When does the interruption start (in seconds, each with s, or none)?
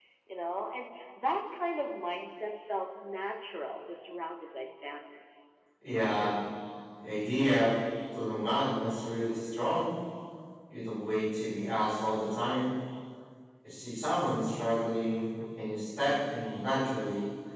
none